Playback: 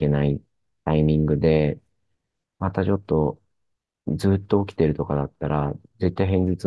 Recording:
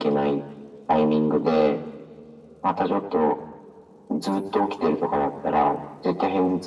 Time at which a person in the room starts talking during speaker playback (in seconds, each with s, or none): none